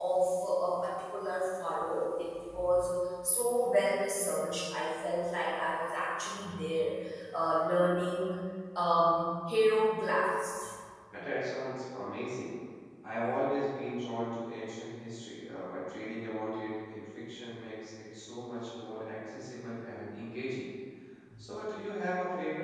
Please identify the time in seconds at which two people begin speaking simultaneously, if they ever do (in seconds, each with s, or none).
none